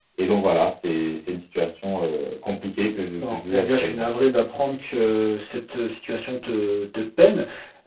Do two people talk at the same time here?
Yes, from 2.8 s

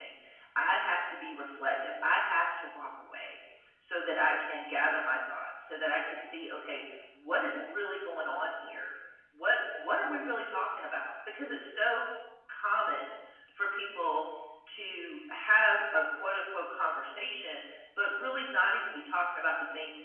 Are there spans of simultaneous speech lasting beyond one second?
No

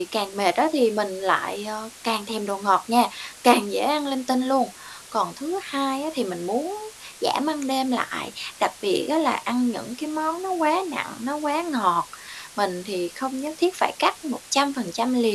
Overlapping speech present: No

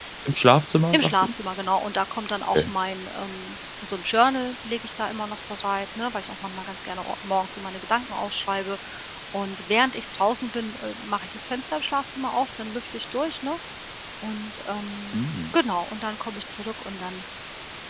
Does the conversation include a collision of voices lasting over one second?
No

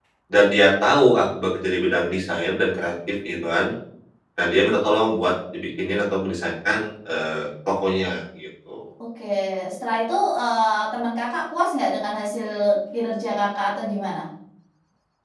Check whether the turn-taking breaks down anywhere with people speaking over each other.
No

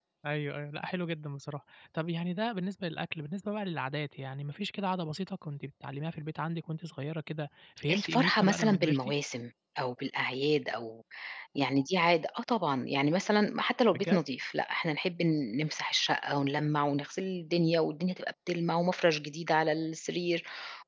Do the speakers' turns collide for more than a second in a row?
Yes, from 7.8 s

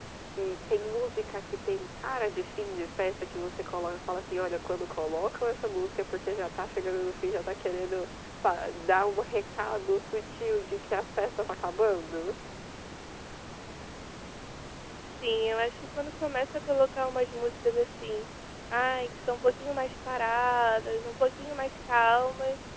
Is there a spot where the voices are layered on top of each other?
No

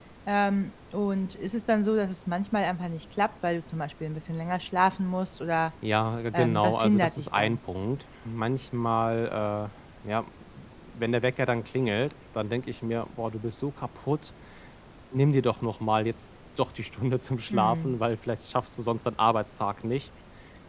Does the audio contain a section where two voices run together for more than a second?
Yes, from 6.3 s

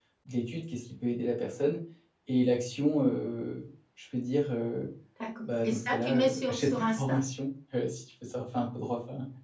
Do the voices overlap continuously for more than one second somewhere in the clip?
Yes, from 5.4 s

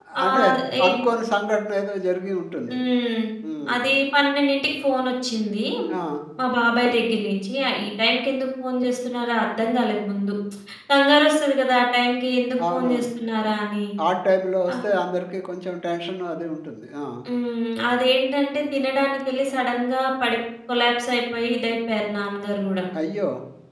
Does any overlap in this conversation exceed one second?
No

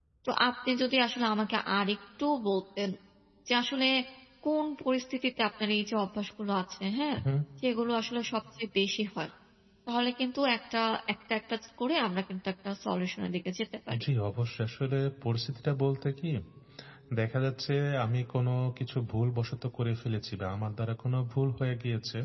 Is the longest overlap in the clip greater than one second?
No

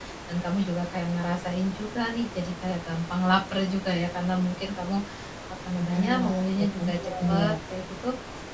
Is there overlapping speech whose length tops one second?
Yes, from 5.8 s

